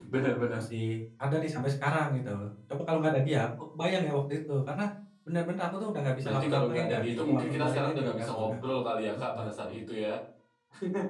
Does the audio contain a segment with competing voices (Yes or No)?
Yes